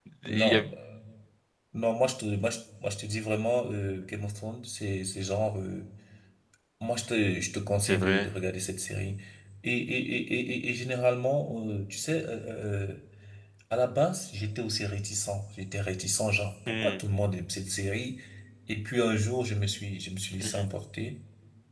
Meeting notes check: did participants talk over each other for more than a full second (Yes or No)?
No